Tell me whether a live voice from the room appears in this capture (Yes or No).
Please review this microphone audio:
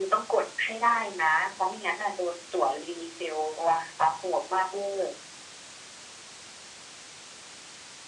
No